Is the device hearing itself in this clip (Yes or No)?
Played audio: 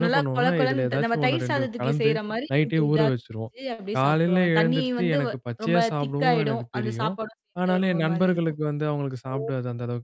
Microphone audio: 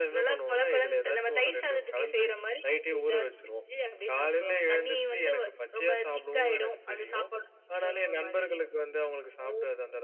Yes